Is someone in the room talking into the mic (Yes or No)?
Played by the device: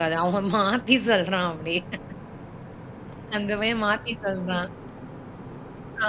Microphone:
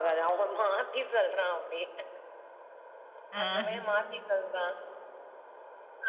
Yes